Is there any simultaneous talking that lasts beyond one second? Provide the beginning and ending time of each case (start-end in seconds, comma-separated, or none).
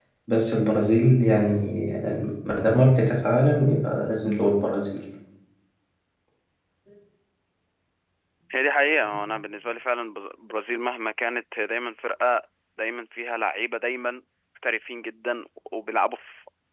none